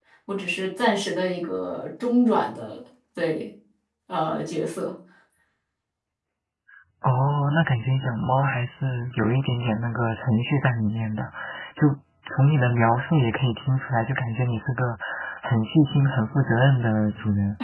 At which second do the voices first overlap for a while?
none

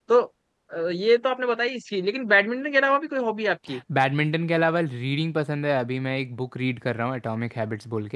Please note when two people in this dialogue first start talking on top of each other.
none

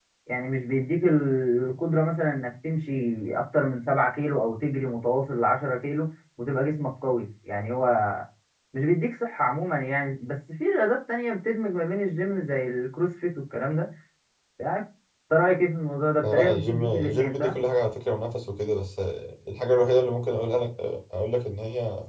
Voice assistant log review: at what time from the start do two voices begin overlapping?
16.2 s

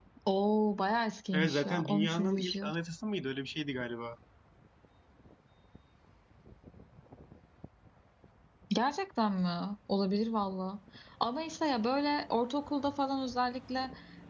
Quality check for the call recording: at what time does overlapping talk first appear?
1.3 s

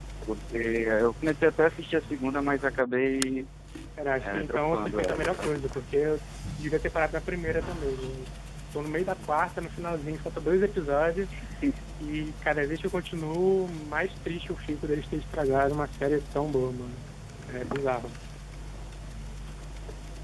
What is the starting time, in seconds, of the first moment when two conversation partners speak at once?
4.2 s

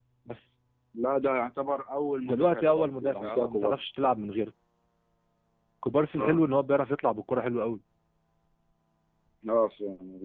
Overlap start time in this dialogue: 2.2 s

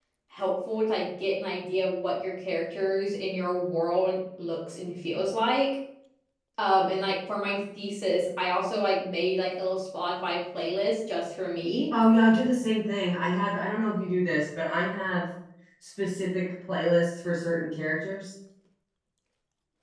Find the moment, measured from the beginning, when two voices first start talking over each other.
none

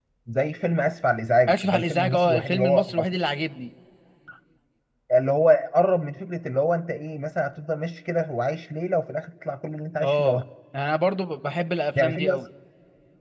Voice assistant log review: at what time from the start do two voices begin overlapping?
1.5 s

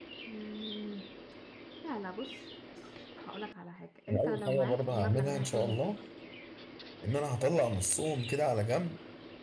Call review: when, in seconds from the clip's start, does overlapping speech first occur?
4.1 s

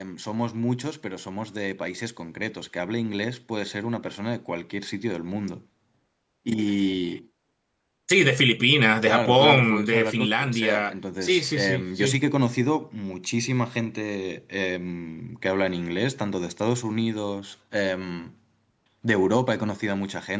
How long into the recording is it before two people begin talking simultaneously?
9.1 s

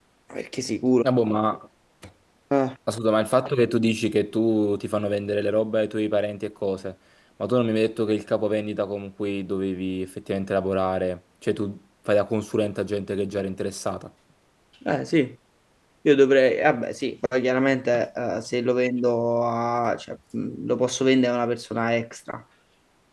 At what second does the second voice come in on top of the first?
none

